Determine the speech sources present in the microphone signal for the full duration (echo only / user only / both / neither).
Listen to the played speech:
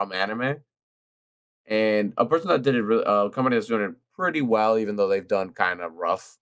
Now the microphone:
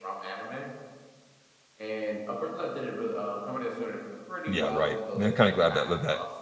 both